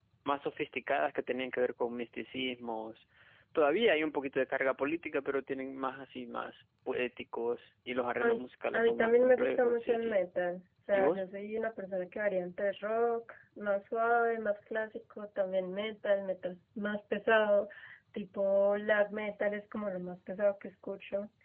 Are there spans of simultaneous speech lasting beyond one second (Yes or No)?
Yes